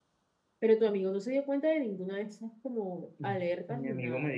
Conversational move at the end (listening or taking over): taking over